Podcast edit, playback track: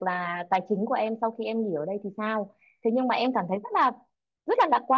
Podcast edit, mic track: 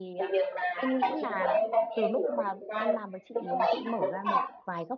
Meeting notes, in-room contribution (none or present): present